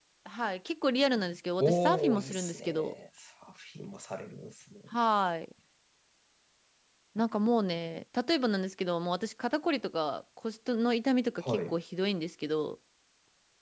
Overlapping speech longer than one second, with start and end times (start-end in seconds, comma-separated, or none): 1.6-2.9